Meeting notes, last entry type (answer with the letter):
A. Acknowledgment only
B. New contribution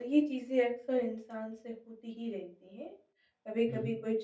A